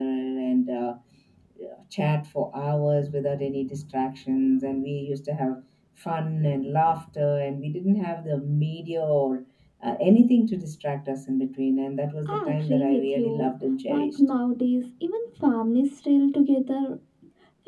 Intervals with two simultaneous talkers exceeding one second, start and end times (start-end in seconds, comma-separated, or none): 12.2-13.5